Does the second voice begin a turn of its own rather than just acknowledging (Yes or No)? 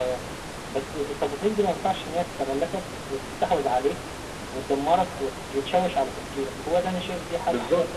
Yes